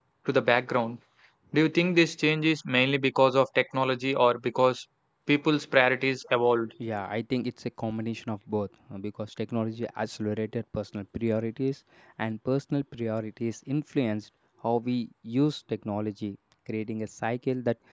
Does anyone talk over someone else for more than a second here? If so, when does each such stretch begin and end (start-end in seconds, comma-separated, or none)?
none